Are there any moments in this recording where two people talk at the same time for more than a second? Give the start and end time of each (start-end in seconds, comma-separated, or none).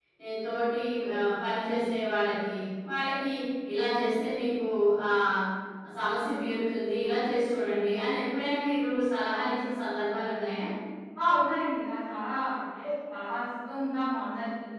none